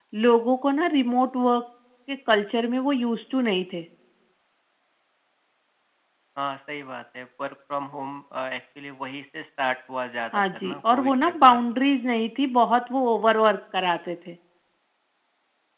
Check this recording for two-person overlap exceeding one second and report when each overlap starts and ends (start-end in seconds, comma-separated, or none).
10.3-11.6